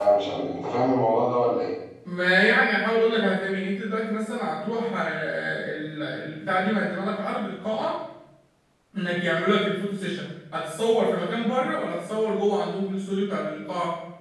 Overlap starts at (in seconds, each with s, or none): none